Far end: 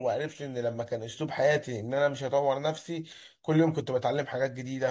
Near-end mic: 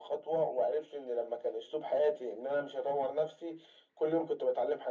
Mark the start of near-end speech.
none

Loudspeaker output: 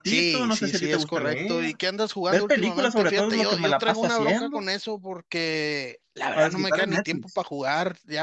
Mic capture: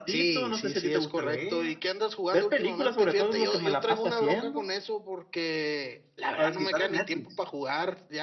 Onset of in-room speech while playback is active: none

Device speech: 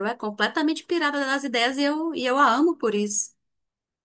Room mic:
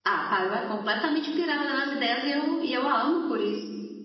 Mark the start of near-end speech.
none

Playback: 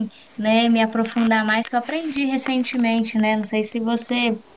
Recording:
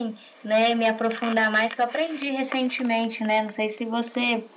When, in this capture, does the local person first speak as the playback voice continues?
none

